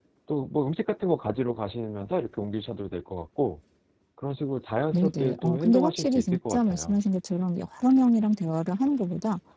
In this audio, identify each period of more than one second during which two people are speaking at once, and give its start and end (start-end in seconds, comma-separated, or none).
4.9-7.0